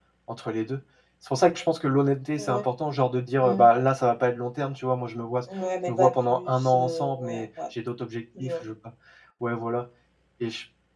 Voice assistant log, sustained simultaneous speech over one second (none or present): present